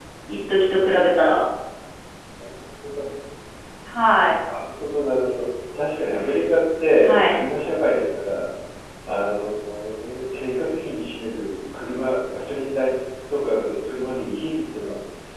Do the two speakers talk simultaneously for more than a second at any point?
No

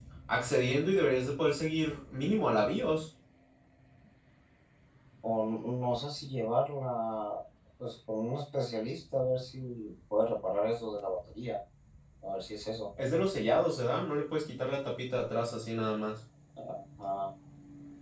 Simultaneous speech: No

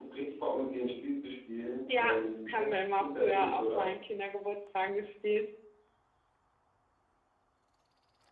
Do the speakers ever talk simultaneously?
Yes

